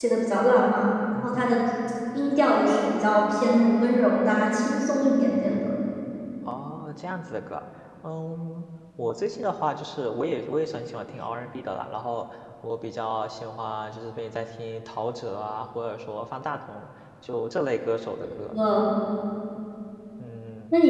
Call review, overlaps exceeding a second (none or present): none